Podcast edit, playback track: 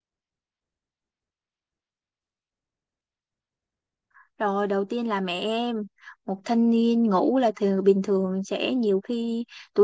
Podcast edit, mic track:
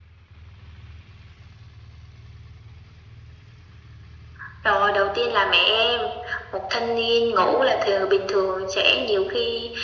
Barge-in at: none

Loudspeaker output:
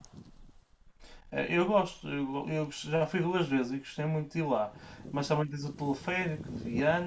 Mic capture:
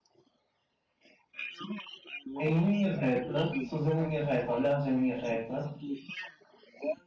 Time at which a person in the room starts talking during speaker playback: 2 s

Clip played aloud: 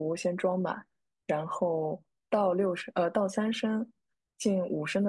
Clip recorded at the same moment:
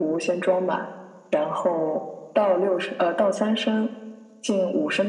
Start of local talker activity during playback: none

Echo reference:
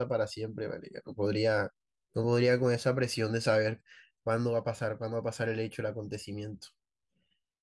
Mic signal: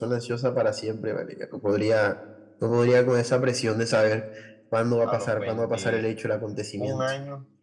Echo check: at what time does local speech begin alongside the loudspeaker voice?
5 s

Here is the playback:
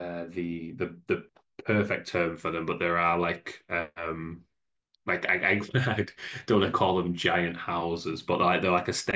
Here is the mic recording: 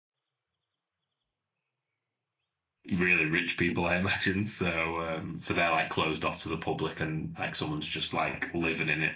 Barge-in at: 3 s

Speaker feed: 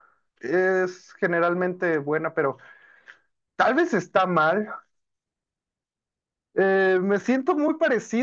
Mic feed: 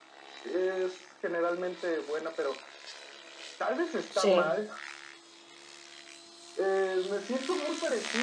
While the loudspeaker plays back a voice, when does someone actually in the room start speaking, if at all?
4 s

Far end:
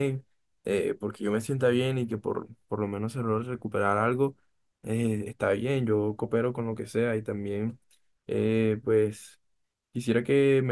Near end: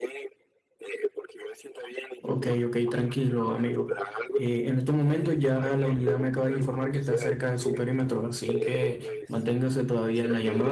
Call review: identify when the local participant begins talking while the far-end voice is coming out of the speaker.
2 s

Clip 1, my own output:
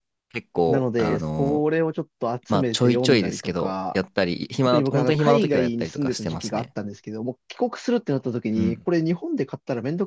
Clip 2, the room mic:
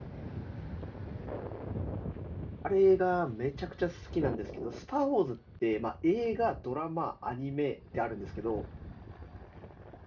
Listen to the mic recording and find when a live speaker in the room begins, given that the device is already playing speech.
3 s

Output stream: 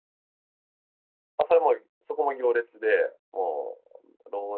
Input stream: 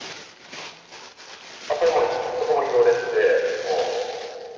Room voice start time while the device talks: none

